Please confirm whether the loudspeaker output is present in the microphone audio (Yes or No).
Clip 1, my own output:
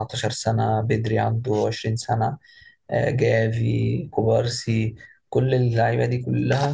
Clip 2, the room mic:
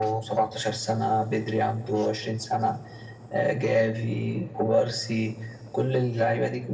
Yes